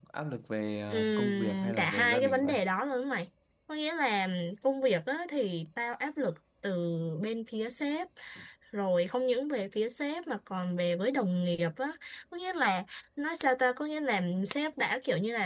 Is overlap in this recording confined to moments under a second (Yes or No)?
No